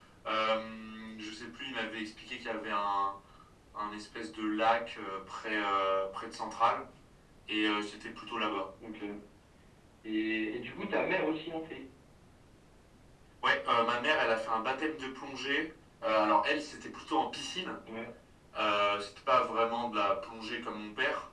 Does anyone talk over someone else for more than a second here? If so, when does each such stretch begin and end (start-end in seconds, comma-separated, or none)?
none